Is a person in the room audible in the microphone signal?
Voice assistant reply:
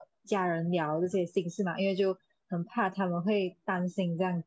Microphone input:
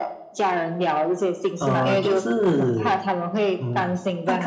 Yes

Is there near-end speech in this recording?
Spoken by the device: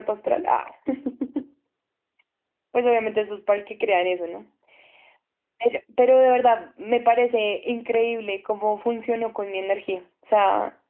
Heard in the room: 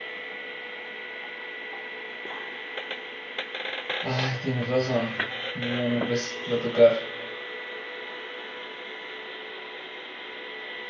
Yes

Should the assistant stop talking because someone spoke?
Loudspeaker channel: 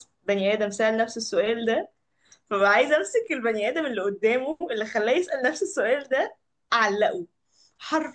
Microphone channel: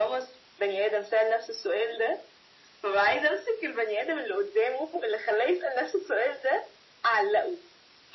No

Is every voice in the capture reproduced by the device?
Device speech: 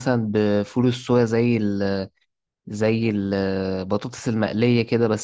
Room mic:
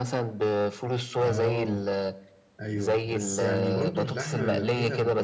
No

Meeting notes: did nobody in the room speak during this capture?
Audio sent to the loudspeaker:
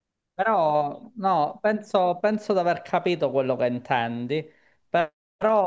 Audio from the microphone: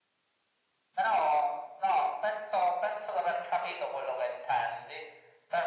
Yes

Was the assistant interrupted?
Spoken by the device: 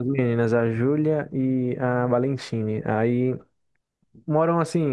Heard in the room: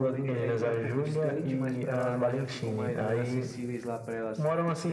Yes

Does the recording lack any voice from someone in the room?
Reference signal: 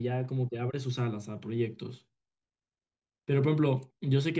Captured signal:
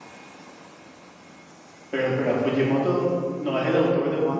No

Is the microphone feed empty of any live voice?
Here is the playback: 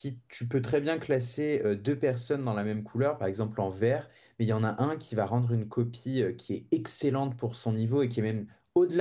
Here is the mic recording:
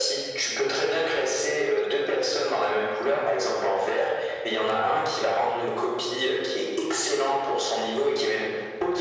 Yes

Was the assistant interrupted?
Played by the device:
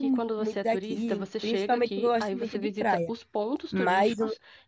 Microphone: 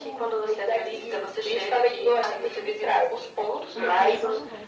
Yes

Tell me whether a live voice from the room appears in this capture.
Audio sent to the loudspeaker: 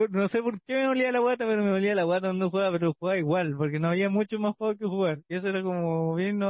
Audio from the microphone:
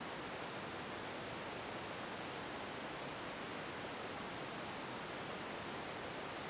No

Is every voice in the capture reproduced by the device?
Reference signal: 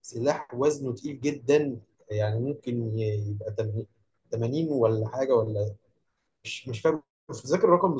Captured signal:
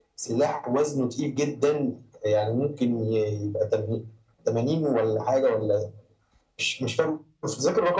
Yes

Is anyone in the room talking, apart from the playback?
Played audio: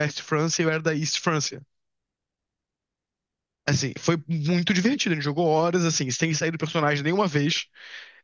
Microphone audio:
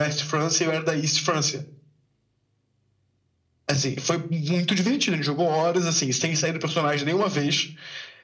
No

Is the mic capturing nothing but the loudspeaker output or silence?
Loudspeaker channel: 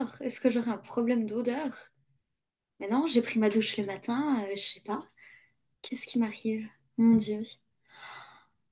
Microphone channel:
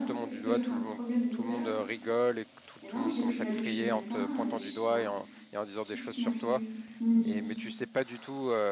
No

